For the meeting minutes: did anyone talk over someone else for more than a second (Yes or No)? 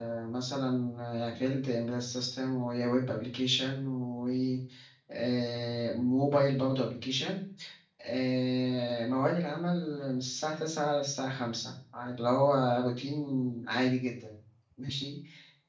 No